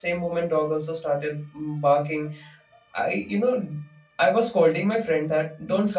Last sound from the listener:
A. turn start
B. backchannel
B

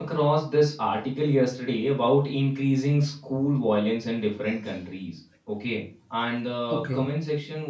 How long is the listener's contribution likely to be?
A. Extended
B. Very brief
B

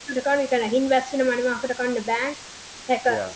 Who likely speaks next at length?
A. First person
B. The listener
A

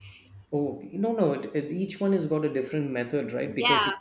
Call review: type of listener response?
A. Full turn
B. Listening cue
A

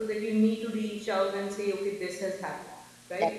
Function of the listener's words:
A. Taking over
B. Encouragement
B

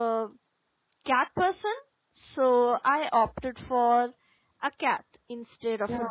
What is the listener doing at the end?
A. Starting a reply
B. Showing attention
A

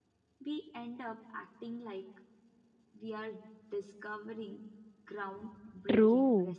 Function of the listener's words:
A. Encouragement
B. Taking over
B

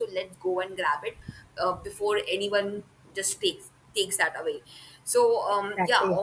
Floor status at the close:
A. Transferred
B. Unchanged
B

